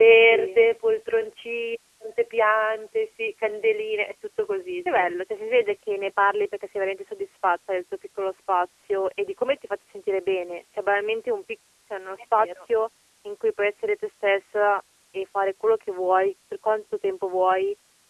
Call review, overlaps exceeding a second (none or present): none